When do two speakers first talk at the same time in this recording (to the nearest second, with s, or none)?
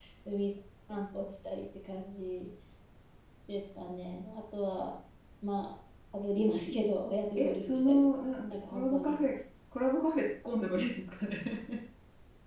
7 s